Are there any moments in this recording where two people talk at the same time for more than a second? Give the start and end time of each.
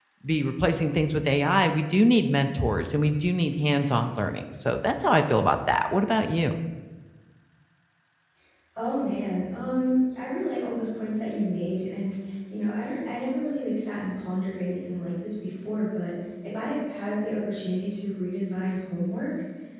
none

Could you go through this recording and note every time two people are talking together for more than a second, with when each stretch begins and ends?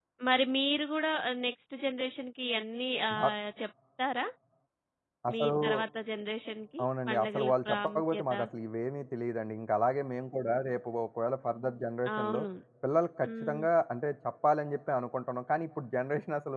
6.8-8.2

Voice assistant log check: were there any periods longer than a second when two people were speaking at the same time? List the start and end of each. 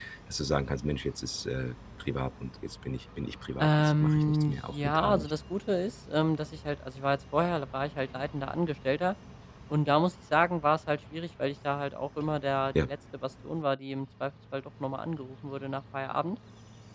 3.6-5.3

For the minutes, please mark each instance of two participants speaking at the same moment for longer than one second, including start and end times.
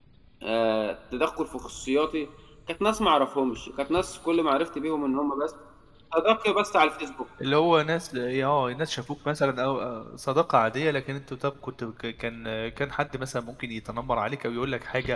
none

